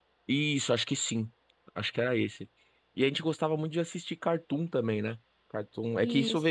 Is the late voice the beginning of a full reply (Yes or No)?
No